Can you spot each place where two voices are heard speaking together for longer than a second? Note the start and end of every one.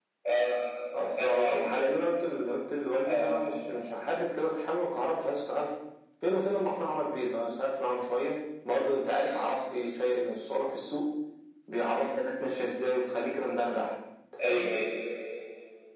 none

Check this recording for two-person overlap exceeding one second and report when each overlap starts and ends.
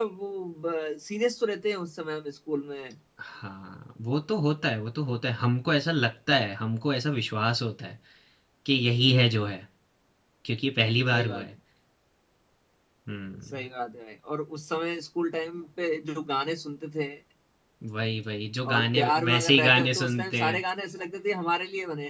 18.7-20.6

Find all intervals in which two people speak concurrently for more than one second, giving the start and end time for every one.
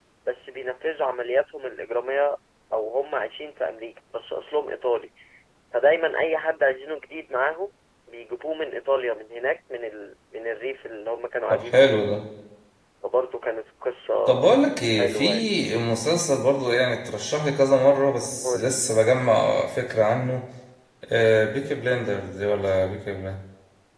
none

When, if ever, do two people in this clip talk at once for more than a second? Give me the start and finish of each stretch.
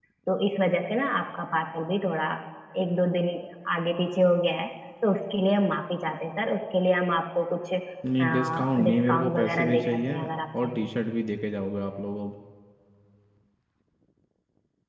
8.2-10.2

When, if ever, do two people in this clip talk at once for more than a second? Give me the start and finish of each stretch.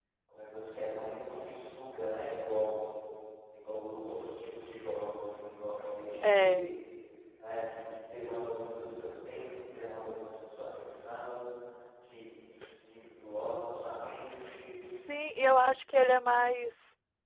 none

